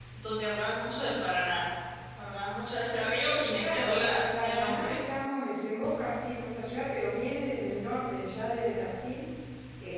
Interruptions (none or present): present